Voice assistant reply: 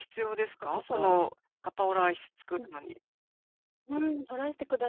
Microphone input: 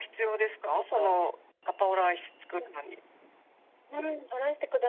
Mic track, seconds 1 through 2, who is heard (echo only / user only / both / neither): echo only